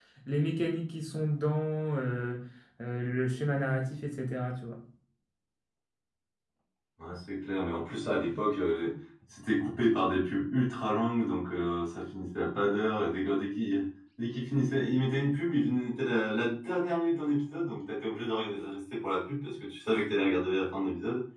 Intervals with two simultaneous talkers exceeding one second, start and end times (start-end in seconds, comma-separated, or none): none